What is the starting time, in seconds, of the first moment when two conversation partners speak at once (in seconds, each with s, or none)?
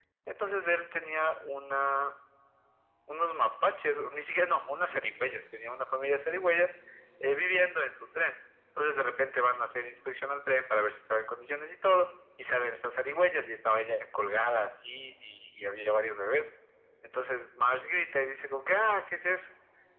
none